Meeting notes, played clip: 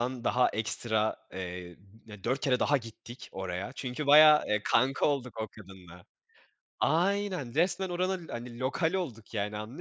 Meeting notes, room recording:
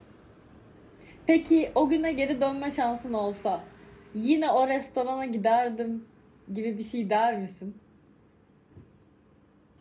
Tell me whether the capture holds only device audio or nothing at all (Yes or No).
No